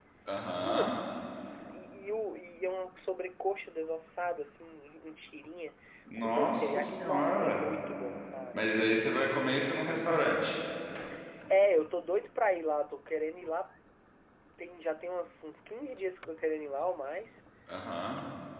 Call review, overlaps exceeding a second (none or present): present